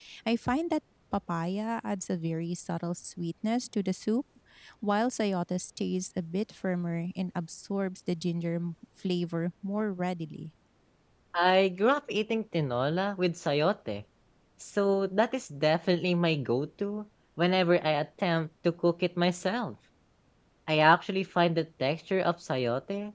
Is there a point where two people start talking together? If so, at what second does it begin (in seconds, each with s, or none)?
none